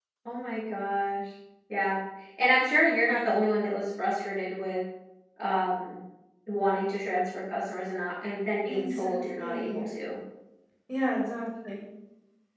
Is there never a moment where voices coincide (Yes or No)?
No